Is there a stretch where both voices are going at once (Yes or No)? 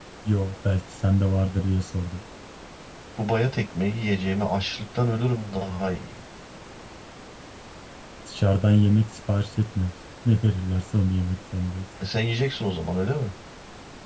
No